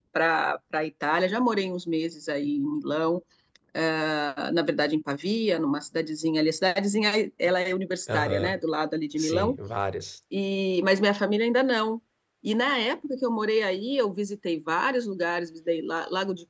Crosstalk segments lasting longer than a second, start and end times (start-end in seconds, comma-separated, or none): none